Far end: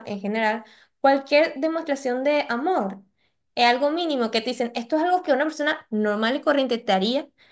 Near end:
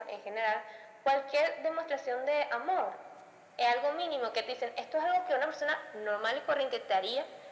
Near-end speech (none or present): none